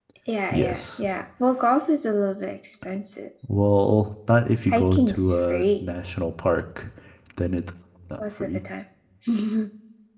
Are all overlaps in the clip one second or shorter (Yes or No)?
No